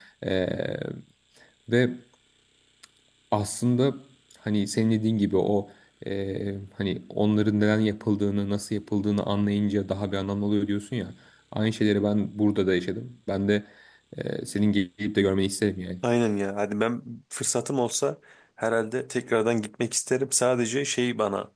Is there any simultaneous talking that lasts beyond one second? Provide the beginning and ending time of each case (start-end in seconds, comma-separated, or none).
none